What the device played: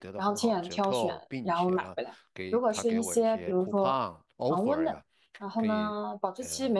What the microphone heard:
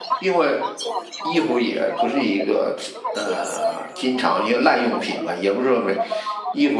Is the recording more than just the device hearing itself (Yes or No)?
Yes